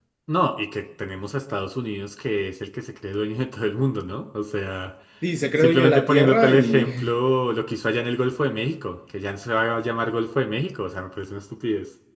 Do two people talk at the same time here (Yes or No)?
Yes